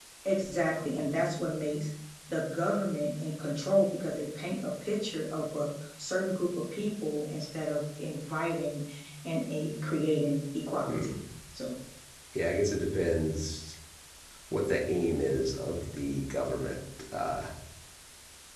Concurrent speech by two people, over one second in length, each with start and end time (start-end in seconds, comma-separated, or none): none